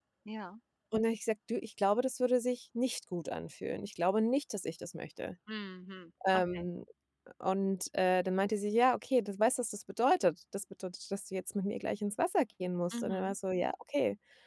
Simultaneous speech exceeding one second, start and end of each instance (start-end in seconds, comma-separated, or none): none